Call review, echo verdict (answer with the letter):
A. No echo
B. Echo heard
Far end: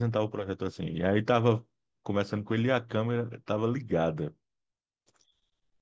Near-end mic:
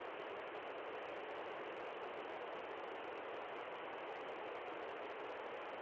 A